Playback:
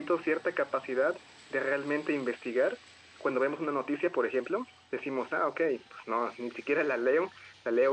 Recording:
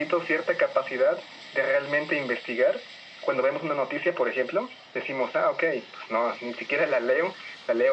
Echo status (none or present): present